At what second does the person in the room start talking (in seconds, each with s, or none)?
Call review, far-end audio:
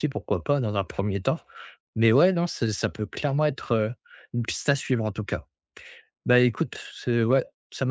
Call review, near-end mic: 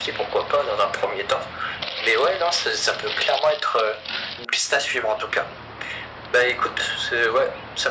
none